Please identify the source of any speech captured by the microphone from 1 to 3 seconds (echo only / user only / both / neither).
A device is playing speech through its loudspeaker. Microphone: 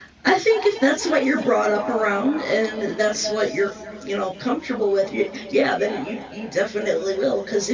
user only